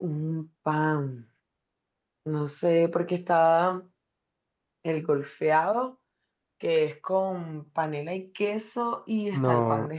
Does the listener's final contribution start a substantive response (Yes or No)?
Yes